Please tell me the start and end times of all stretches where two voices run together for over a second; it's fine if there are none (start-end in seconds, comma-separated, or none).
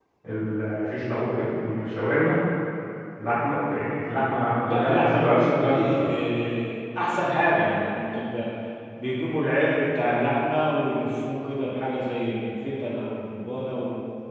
4.7-6.1